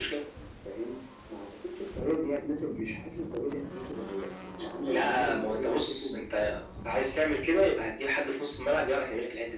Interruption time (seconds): 4.6 s

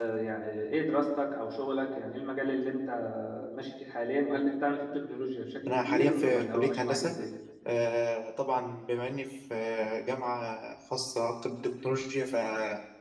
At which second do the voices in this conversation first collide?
5.7 s

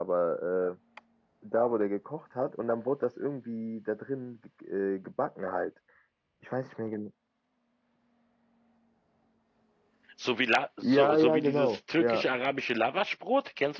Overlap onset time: 10.8 s

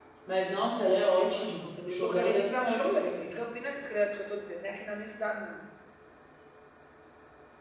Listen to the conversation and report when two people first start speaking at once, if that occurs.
1.2 s

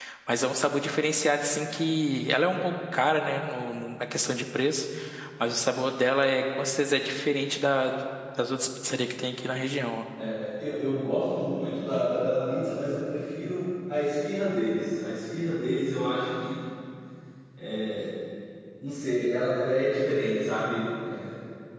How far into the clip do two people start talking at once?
none

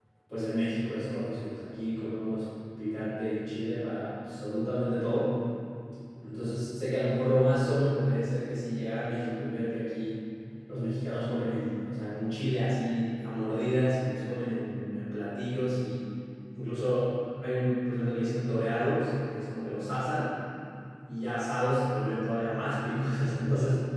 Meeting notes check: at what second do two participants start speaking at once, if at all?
none

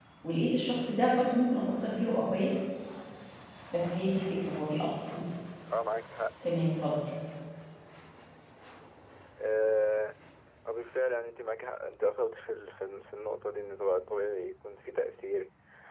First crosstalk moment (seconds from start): none

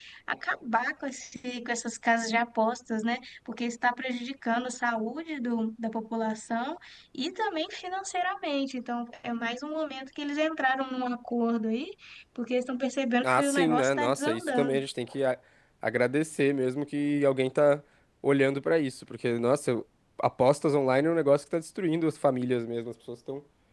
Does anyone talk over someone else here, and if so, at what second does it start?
13.2 s

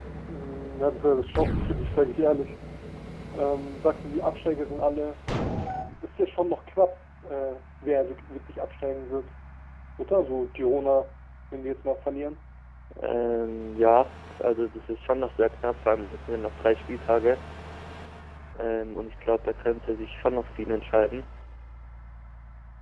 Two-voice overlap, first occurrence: none

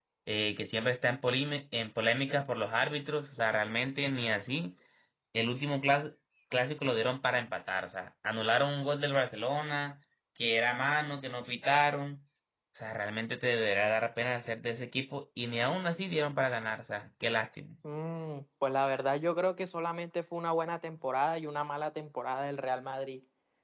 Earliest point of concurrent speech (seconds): none

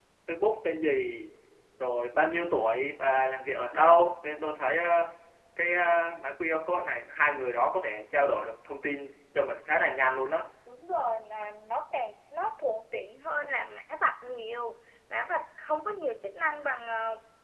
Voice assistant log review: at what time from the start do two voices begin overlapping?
none

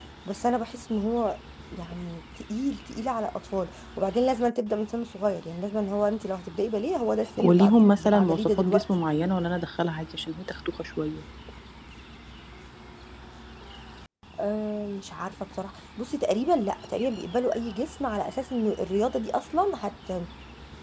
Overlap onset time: 7.4 s

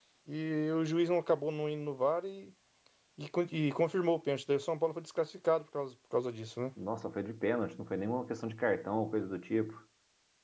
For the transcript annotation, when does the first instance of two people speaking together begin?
none

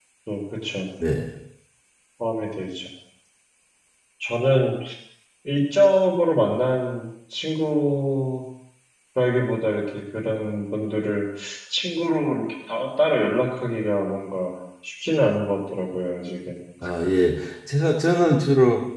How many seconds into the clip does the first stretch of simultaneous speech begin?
none

